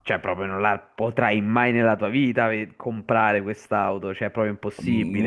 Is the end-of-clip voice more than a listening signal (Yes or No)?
Yes